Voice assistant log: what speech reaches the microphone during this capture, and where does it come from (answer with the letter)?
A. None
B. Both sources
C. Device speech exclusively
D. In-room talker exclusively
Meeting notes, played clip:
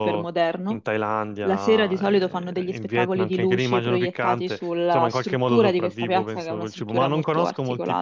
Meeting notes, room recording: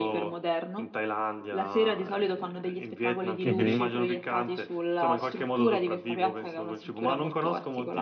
B